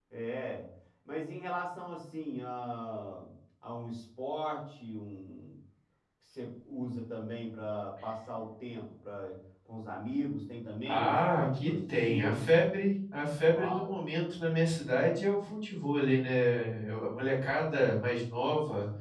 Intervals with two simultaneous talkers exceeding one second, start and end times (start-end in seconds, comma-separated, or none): 10.9-12.6